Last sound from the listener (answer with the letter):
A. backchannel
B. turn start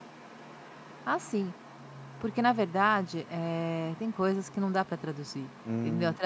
B